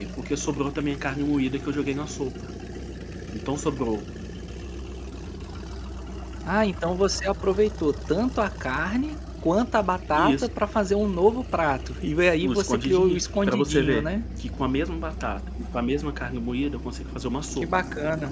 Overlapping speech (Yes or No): Yes